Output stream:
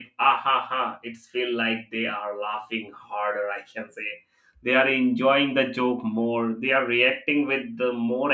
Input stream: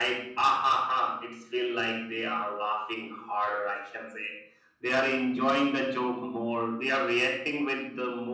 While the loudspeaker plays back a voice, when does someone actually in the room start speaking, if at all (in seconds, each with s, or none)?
none